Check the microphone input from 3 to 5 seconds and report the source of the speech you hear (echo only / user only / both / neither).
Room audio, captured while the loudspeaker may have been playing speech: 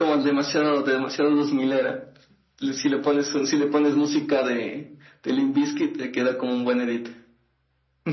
echo only